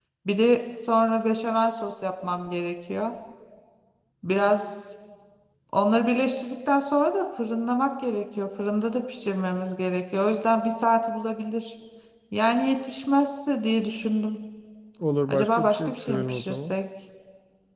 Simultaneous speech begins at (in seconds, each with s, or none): 15.3 s